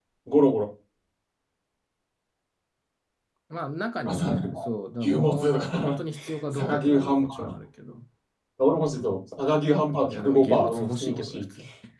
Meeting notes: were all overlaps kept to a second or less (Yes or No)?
No